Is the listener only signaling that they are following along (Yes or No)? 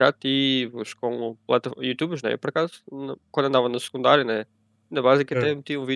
Yes